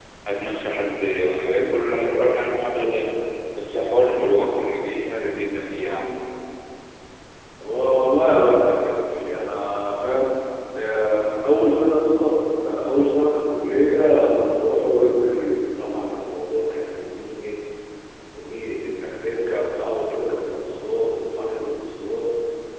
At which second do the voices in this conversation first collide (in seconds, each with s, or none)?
none